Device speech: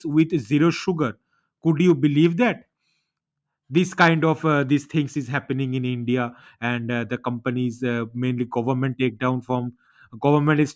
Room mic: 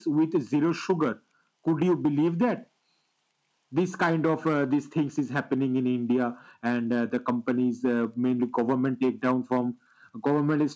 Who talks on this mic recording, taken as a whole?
echo only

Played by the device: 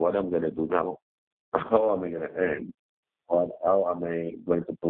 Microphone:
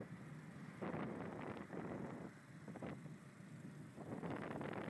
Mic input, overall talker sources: neither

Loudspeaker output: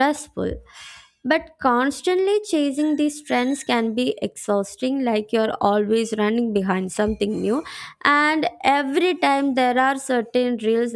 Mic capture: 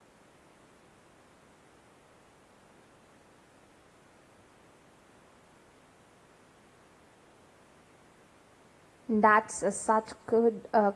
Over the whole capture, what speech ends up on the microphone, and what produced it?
user only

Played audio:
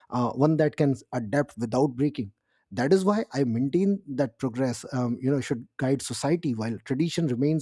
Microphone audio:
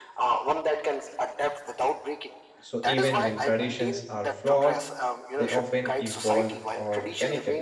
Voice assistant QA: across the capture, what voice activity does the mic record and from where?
both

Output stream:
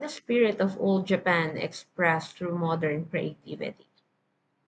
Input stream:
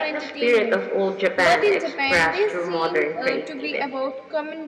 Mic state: both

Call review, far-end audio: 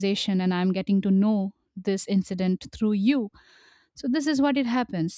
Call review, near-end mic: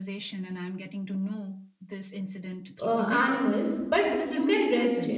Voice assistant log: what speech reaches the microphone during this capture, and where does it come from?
both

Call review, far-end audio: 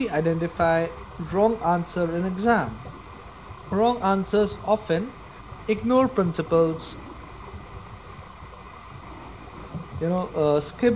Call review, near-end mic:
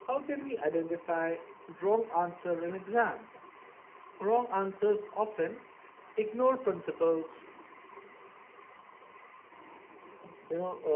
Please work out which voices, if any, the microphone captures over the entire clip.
echo only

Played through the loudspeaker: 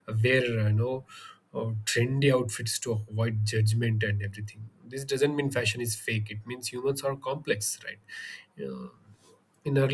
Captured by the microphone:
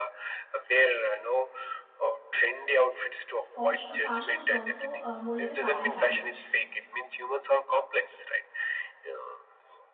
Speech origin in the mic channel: both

